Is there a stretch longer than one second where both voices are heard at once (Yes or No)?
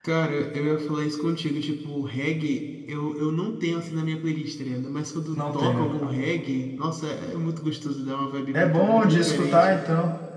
Yes